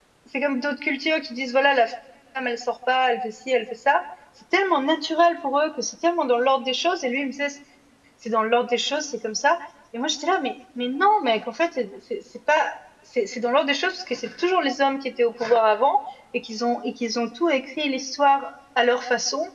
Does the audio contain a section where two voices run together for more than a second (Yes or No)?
No